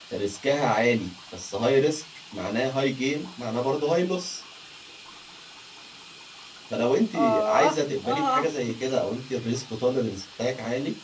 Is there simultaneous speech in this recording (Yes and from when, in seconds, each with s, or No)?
Yes, from 7.1 s